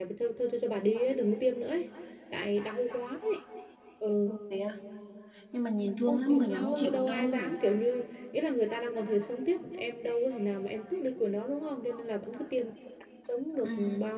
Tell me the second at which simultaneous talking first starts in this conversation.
6.1 s

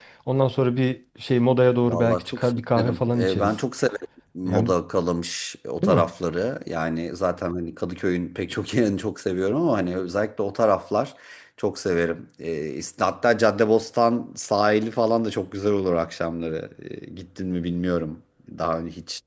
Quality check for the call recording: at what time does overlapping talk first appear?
1.8 s

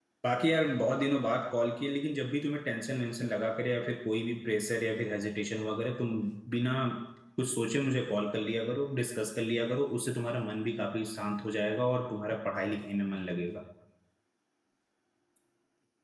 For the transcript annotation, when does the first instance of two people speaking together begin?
none

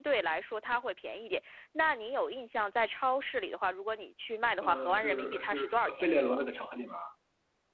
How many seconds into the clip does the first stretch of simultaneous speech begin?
4.6 s

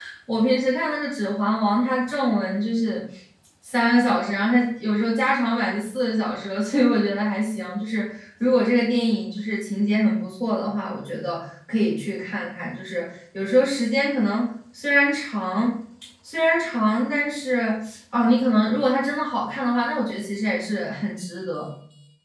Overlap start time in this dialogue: none

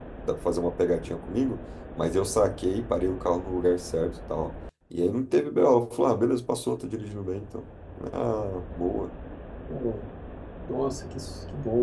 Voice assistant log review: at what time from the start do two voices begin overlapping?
none

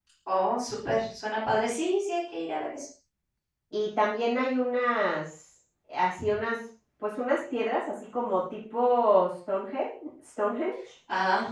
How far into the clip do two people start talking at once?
none

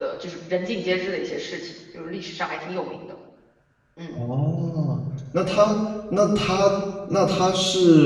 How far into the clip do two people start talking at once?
none

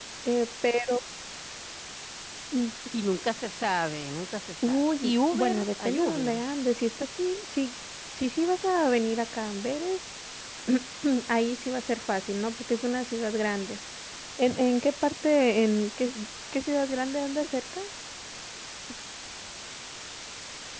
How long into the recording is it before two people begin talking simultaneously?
4.6 s

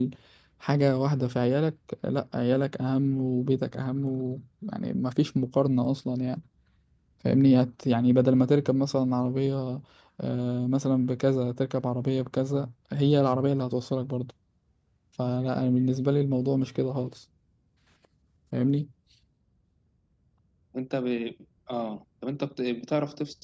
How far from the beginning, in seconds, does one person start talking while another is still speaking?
none

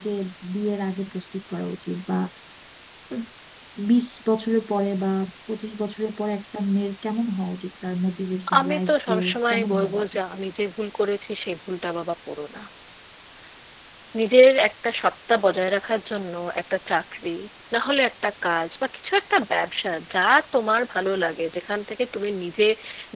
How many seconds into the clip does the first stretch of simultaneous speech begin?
8.5 s

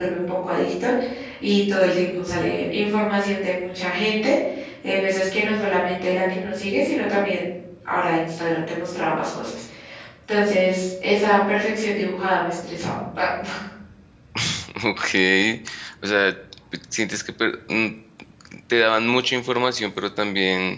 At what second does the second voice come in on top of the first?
none

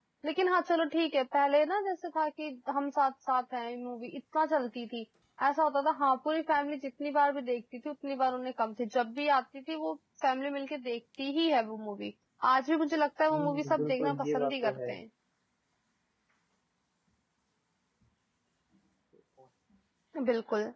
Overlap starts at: 13.3 s

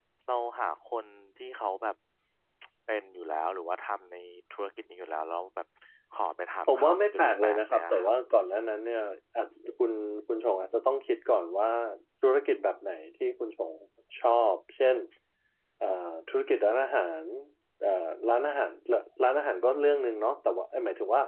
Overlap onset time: 6.7 s

